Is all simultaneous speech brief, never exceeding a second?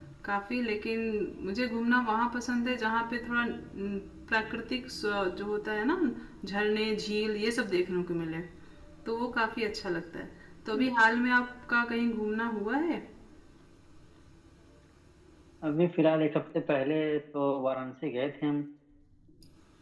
Yes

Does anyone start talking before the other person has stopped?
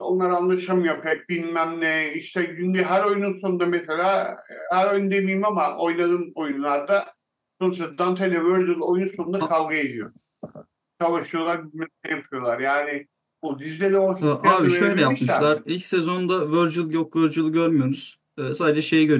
Yes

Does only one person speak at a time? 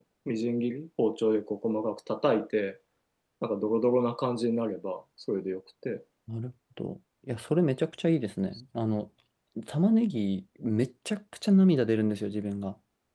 Yes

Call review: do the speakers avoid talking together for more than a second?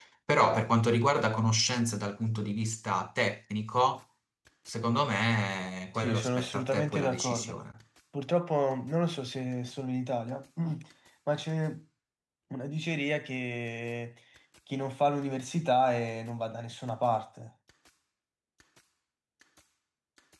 No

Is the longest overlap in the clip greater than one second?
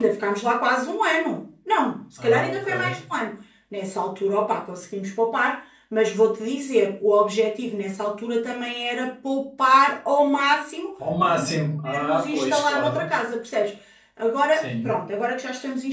Yes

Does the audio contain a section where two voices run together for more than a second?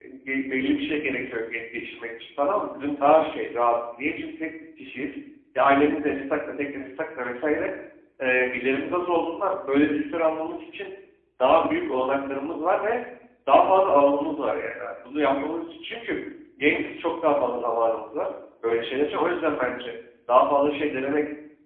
No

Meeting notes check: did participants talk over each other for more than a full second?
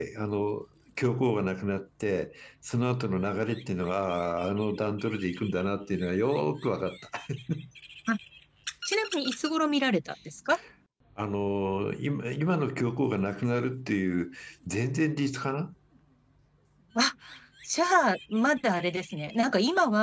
No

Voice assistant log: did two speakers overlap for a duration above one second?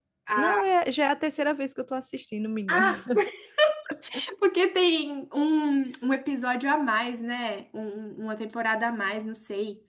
No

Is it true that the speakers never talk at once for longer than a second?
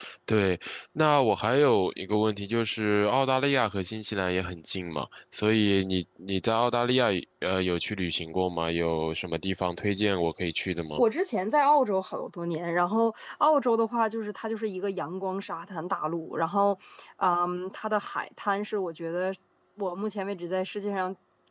Yes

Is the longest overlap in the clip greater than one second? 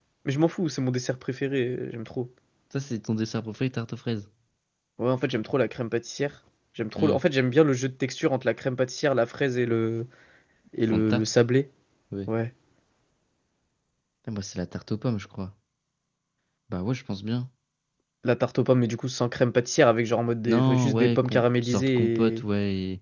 Yes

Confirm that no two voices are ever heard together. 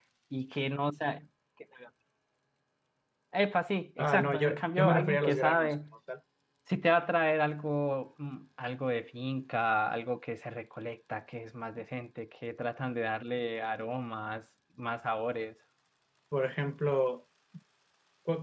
No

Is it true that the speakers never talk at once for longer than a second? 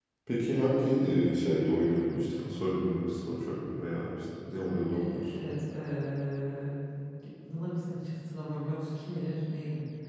Yes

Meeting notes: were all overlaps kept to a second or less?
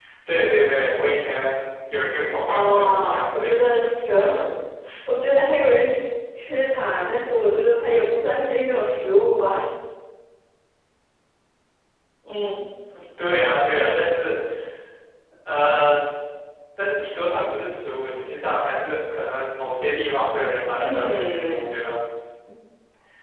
No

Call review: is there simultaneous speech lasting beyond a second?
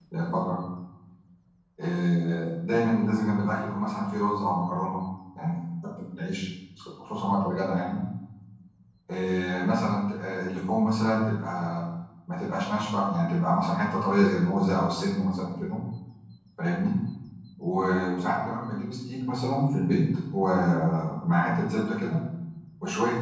No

